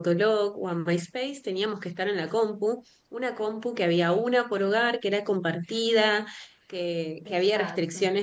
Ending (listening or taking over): listening